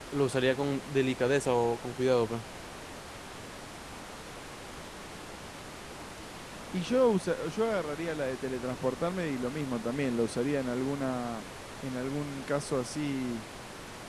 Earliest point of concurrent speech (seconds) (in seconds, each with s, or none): none